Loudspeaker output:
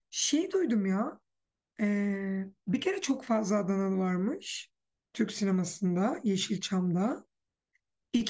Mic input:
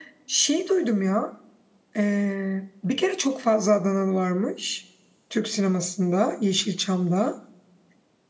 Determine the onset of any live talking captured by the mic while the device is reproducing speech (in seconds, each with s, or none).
none